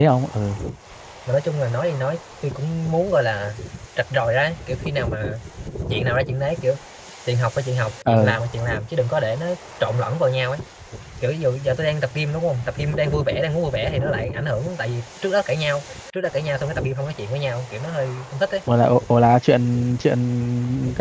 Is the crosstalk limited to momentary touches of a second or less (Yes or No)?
Yes